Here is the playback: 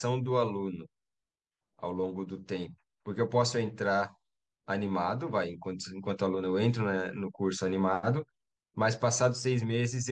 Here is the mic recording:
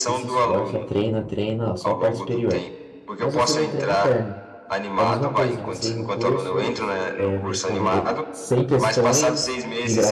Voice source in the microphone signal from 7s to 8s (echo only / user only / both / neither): both